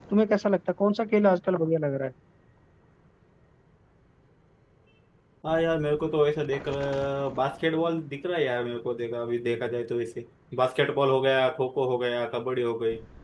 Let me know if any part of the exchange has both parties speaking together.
No

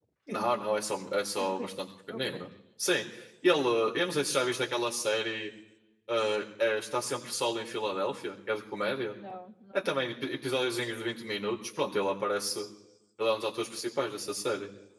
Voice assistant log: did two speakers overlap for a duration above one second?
No

